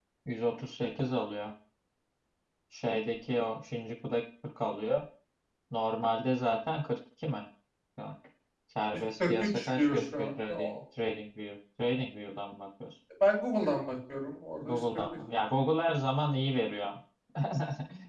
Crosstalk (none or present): present